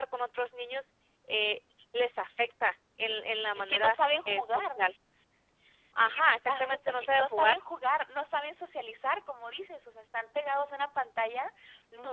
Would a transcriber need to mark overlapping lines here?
Yes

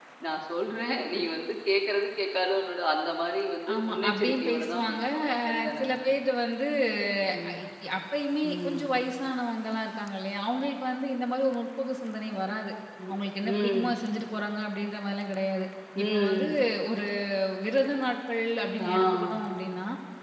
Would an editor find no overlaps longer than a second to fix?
No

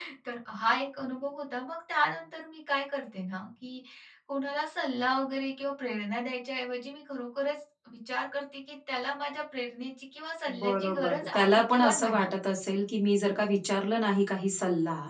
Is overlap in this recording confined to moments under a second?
No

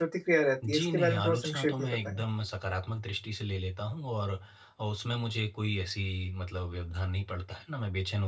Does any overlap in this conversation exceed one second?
Yes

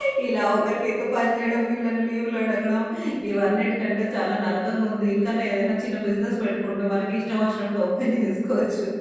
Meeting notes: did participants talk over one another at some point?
No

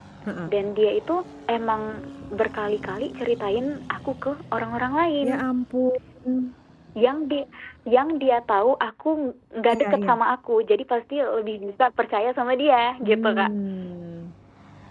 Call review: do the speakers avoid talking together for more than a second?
Yes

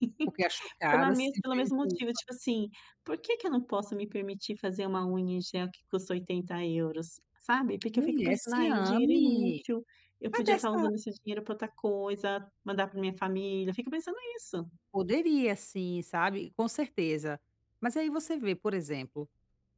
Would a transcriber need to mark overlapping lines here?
Yes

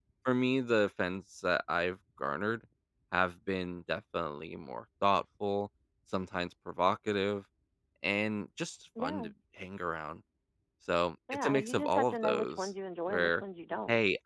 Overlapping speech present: Yes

